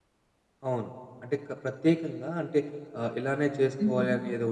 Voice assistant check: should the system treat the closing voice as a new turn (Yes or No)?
No